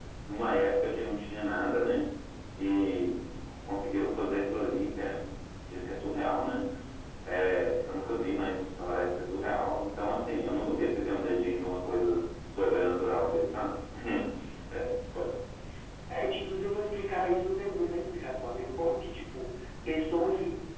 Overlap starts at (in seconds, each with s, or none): none